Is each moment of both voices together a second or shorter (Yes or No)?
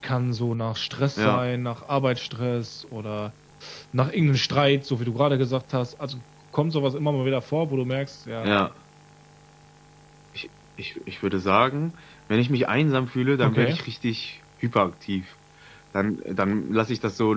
Yes